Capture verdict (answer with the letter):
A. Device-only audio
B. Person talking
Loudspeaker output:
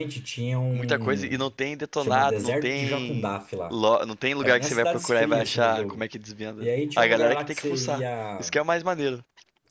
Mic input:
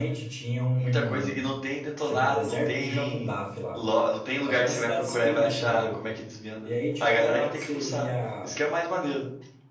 A